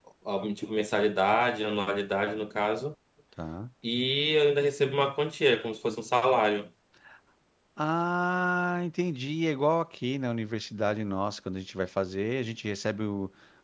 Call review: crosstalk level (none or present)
none